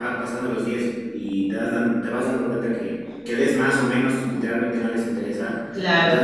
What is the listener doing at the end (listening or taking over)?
listening